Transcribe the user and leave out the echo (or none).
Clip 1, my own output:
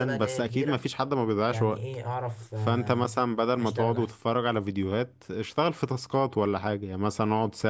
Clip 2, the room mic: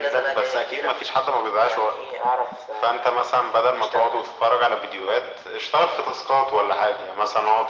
none